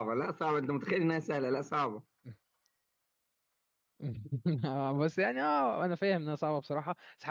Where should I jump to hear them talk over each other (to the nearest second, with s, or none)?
none